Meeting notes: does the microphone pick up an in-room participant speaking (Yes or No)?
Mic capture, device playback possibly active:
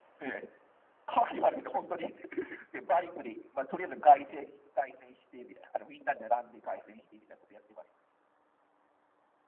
No